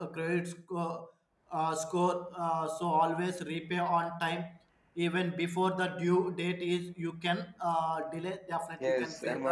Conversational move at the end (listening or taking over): taking over